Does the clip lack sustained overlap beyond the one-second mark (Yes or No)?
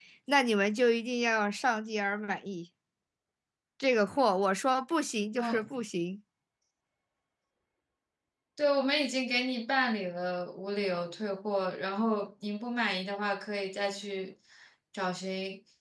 Yes